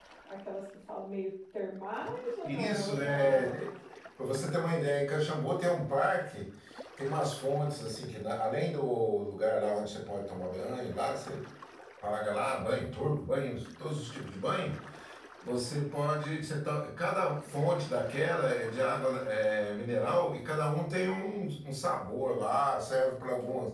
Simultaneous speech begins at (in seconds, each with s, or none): 2.5 s